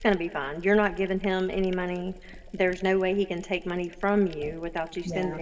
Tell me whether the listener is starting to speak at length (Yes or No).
No